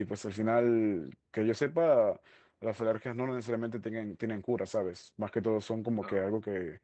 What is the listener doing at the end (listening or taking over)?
listening